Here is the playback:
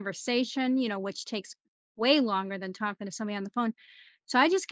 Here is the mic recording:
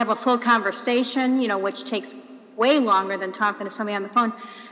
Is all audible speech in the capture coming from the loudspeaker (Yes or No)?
Yes